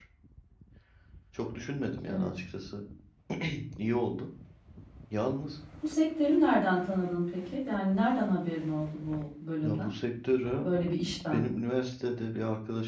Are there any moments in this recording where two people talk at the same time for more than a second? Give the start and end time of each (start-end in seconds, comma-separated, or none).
none